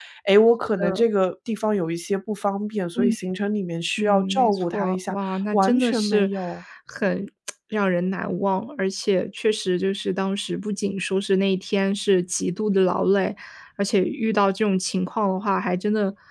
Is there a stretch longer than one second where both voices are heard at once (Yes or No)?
Yes